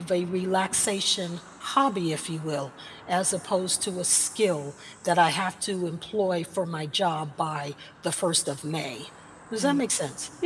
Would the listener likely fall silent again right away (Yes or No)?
No